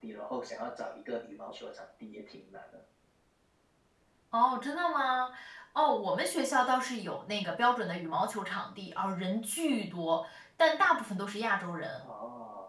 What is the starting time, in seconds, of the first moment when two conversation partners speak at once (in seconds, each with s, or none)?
none